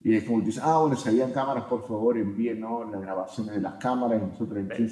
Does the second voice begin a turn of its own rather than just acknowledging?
No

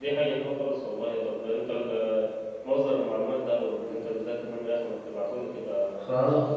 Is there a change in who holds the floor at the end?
Yes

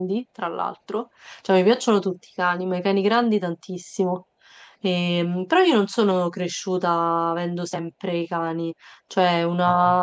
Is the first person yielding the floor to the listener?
No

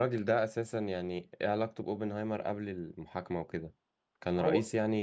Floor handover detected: Yes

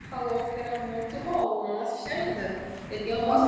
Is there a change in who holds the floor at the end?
Yes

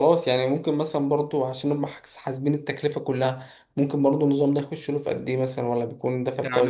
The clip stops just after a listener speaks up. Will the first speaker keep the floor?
No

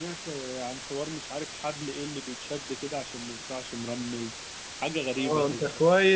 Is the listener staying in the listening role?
No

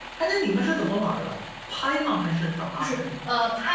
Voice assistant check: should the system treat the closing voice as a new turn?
Yes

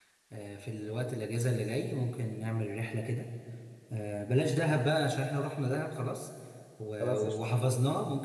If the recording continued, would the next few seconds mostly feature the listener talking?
No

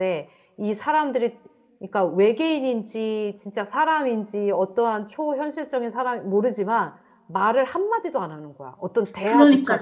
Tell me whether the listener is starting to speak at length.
Yes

